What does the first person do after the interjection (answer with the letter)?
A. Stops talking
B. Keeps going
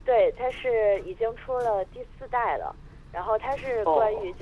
B